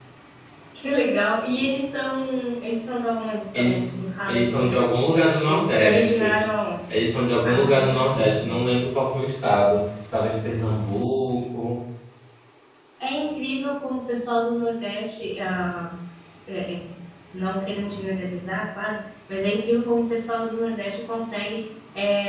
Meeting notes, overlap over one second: present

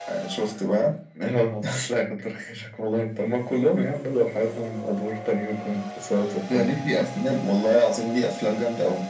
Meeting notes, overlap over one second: none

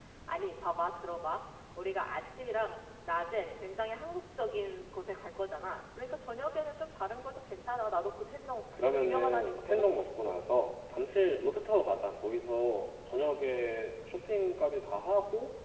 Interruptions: present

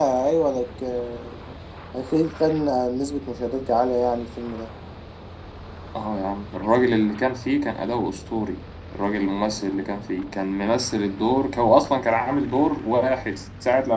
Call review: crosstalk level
none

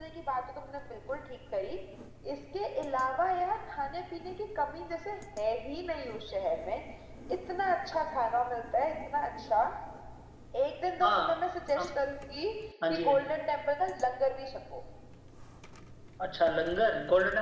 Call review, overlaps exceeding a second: none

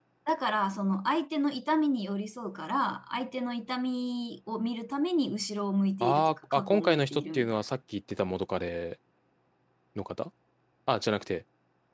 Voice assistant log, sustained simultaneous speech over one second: present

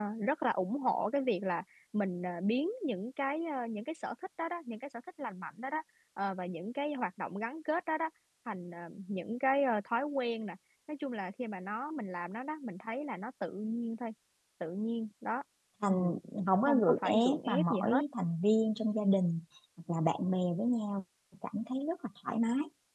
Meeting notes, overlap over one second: present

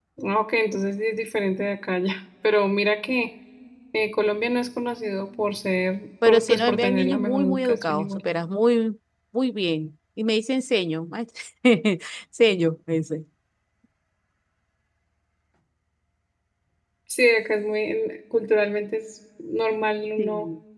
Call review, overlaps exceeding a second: present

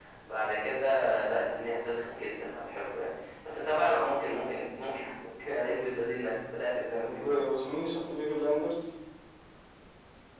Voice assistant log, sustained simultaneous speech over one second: none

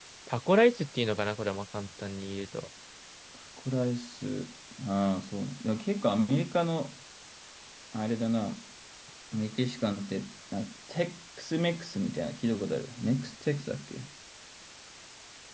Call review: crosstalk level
none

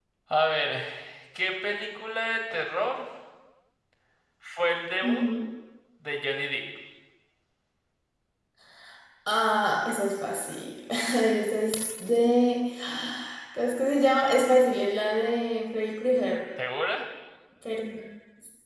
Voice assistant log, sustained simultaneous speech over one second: none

